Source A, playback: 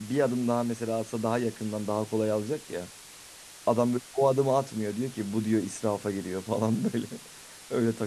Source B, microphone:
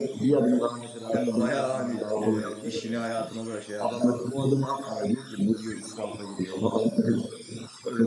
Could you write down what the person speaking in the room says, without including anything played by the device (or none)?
Hem bayağı hani e, işini hayatına da şey yapmışsın.